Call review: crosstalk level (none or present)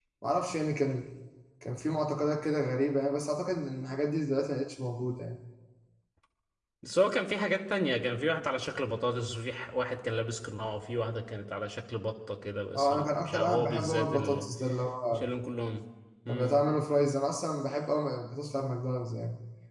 present